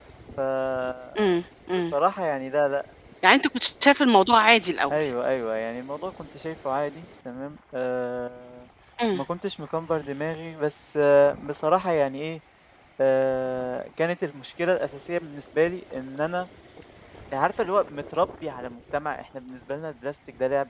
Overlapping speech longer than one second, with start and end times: none

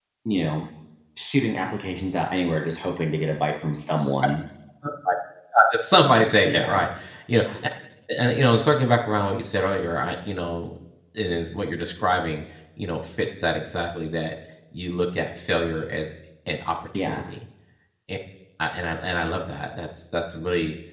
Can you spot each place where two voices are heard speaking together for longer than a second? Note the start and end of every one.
none

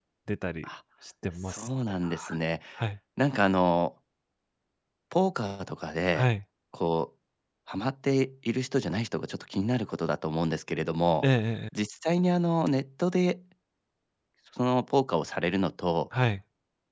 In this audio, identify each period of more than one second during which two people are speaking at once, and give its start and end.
none

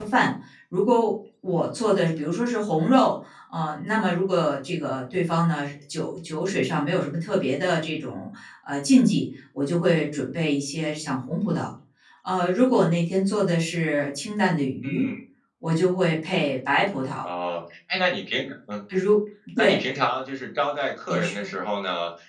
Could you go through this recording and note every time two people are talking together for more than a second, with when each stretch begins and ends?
none

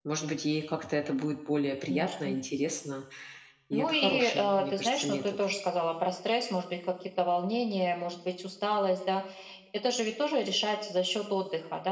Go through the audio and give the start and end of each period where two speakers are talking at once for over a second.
3.7-5.3

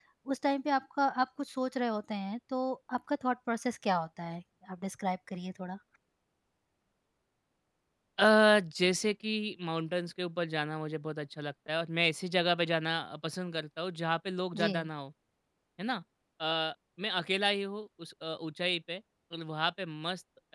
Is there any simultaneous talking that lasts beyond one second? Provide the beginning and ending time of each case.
none

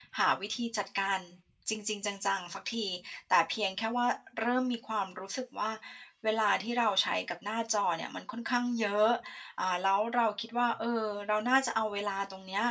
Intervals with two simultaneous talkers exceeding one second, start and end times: none

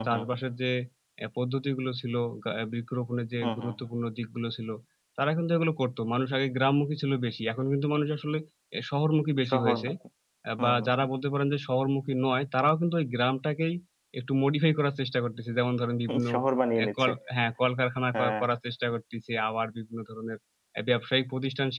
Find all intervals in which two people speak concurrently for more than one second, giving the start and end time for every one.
none

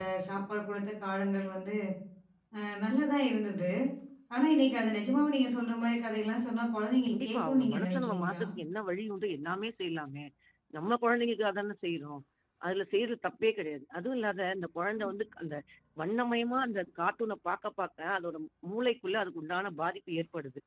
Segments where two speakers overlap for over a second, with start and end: 7.1-8.4

